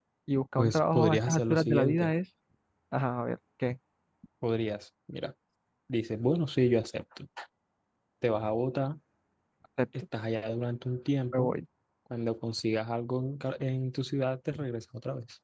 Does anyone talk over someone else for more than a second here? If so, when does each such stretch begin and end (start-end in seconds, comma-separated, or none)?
0.6-2.1